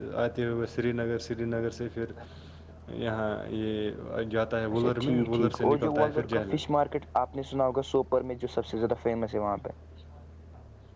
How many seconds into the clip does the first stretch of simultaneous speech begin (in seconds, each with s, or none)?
4.7 s